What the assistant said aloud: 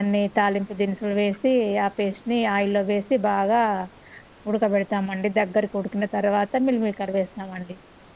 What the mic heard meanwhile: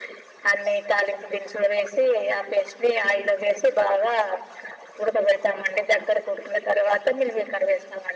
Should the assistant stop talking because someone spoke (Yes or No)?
No